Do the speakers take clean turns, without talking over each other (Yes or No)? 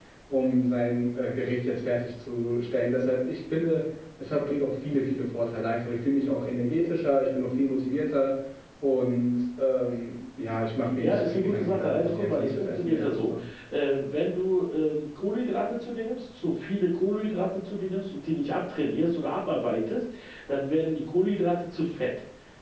No